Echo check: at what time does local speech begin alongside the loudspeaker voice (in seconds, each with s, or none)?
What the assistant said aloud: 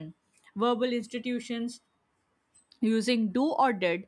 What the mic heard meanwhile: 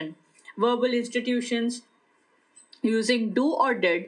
none